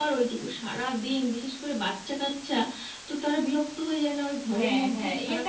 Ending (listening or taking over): taking over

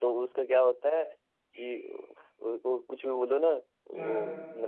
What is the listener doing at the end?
listening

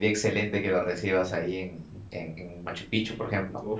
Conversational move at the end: taking over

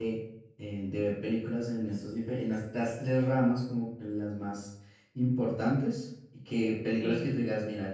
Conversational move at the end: listening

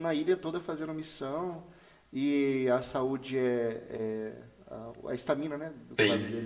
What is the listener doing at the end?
listening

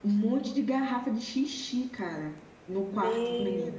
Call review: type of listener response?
taking over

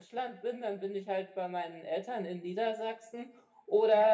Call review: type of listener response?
listening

